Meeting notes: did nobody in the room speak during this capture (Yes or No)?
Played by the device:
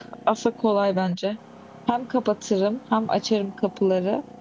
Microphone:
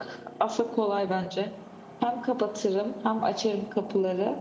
Yes